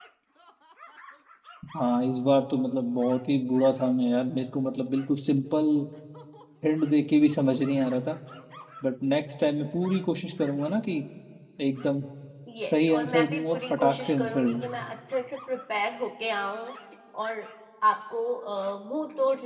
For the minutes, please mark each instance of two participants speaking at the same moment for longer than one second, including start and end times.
12.7-14.6

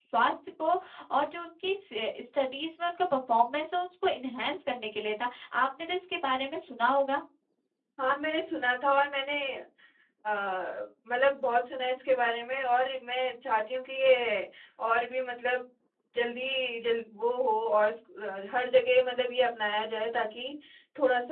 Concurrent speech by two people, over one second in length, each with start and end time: none

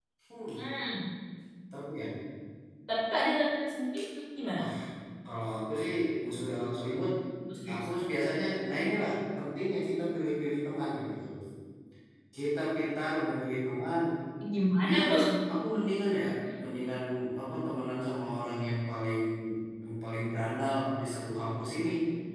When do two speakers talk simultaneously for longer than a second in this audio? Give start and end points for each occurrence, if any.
none

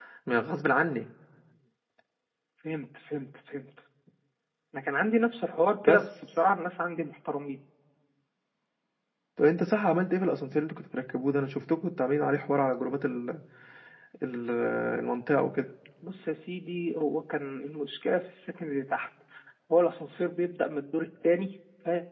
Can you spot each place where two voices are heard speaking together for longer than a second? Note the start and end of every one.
none

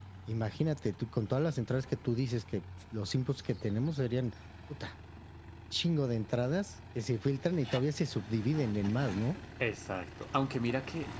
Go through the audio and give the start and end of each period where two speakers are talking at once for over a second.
none

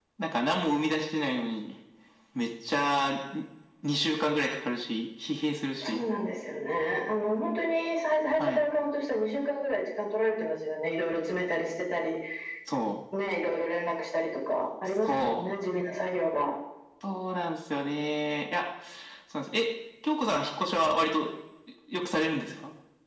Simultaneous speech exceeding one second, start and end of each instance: none

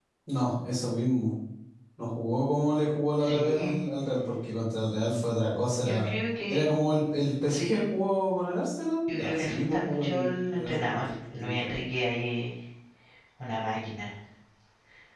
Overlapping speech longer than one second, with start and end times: 9.1-11.7

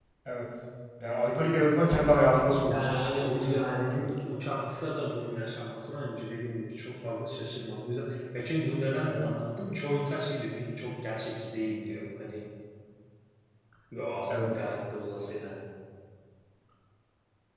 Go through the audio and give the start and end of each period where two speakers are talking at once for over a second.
2.6-4.1

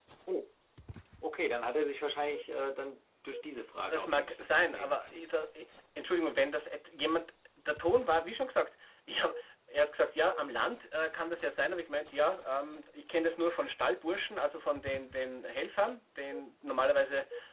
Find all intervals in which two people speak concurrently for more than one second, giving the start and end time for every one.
3.9-5.2

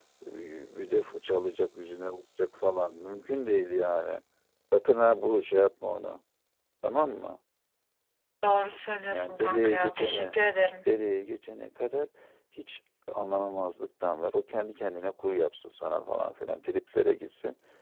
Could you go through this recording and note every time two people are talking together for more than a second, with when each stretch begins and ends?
9.1-10.4

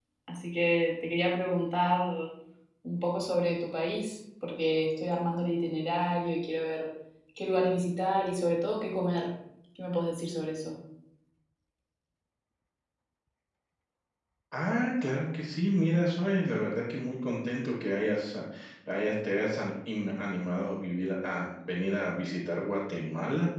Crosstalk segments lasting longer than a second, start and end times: none

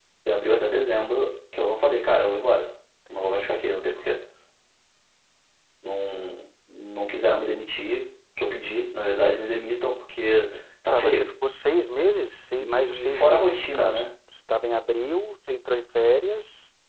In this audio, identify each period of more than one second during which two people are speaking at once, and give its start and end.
12.6-14.0

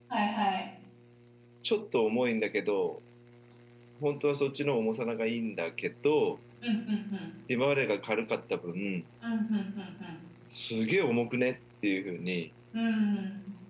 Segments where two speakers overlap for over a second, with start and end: none

